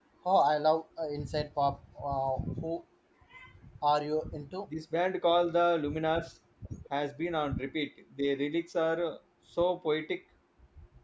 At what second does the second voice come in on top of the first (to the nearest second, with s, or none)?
none